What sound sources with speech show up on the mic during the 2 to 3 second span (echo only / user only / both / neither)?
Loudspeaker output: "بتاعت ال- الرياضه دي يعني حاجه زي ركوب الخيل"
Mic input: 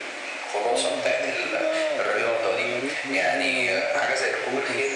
both